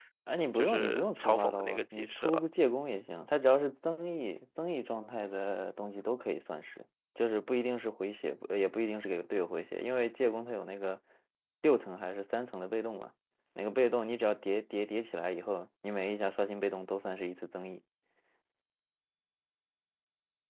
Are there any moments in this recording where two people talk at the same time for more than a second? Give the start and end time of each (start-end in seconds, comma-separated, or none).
0.6-2.4